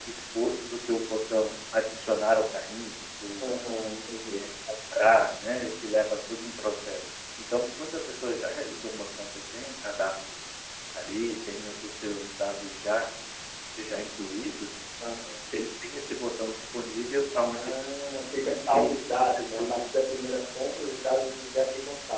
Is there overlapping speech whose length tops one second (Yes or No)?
Yes